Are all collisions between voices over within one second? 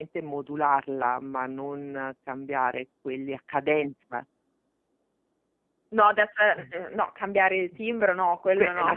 Yes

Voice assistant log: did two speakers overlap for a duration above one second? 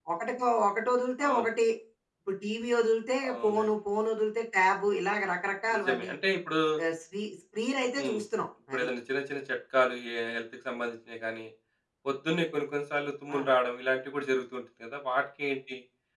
No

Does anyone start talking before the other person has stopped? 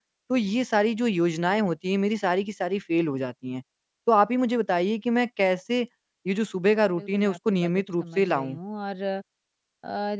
Yes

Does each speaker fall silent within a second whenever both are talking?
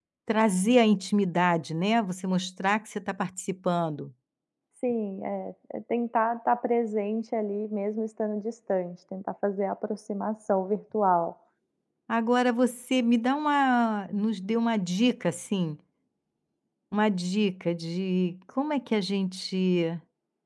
Yes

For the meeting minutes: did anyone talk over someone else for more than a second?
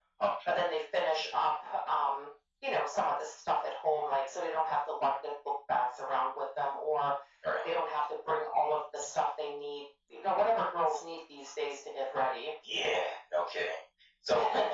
No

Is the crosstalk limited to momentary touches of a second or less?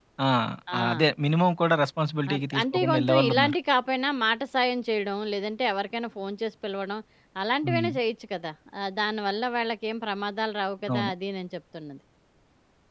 No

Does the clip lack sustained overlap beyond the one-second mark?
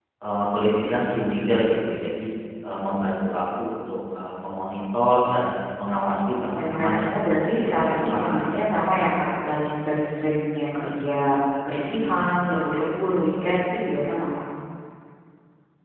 No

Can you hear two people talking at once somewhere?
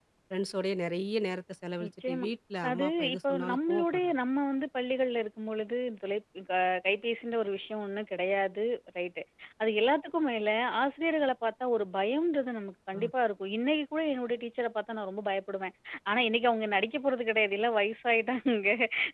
Yes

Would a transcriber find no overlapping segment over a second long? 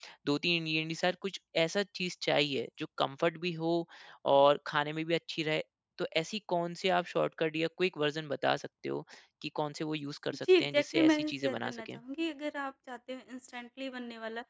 No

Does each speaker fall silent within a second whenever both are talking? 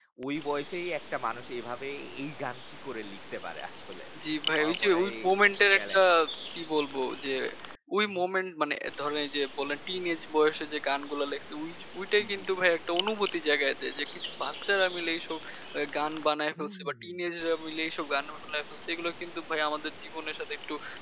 No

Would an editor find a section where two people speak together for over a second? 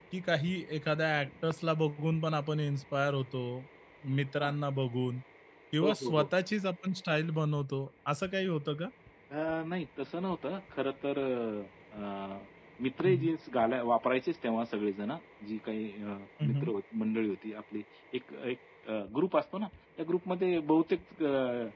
No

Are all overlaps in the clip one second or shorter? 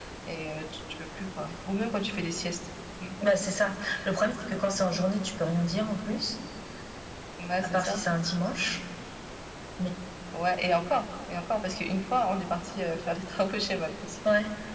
Yes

